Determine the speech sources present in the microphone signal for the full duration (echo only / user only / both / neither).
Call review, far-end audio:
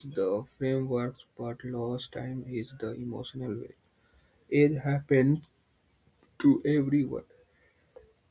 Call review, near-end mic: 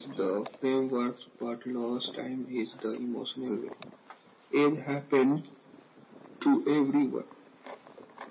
echo only